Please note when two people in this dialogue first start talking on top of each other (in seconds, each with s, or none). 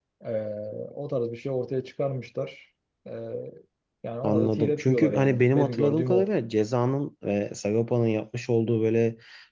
4.2 s